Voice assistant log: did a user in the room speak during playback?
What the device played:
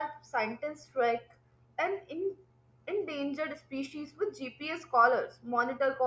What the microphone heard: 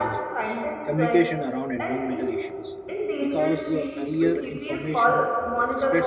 Yes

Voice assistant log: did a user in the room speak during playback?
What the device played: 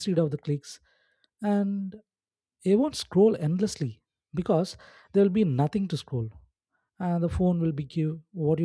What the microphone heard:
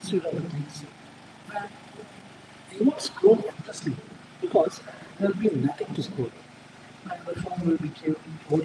No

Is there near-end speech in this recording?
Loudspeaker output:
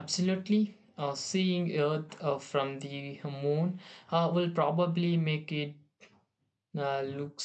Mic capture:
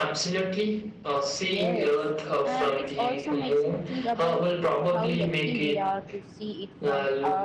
Yes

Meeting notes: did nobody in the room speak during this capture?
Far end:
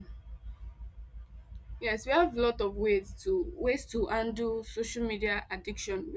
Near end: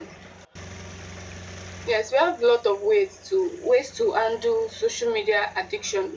Yes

